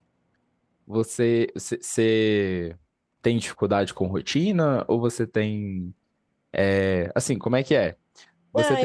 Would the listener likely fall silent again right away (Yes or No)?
No